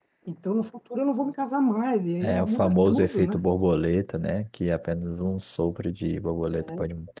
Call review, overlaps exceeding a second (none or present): present